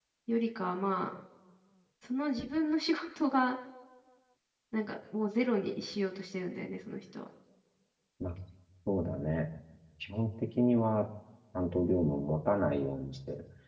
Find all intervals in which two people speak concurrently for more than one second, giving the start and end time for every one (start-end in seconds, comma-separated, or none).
none